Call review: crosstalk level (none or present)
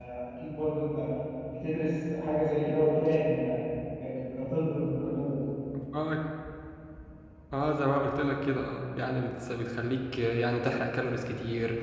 none